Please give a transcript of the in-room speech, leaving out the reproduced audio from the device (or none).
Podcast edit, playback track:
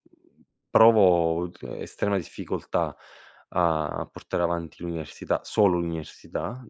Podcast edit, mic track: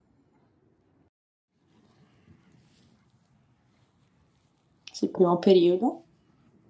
Sì, primo periodo.